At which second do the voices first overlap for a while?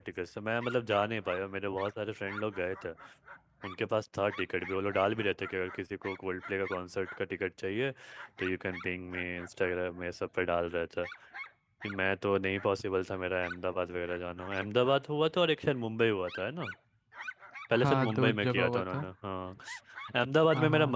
17.7 s

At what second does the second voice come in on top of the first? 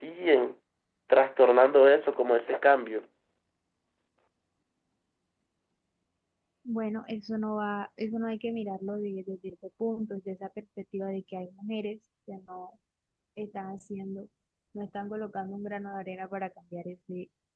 none

